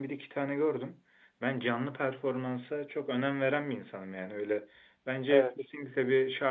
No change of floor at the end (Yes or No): Yes